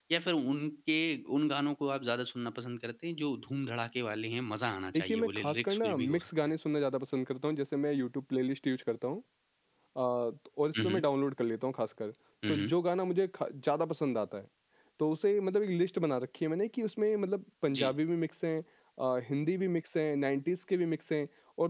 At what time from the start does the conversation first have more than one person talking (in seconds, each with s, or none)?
4.9 s